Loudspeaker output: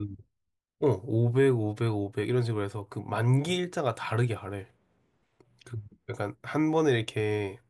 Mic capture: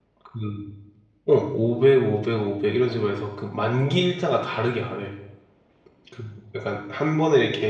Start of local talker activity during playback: none

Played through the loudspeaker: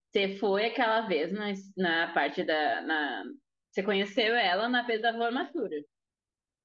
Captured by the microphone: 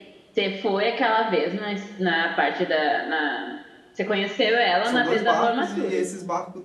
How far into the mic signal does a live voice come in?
4.8 s

